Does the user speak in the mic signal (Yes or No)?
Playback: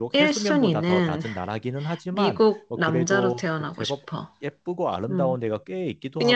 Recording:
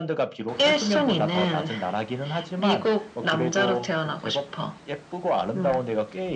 No